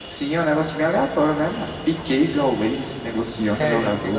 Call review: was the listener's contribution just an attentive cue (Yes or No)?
No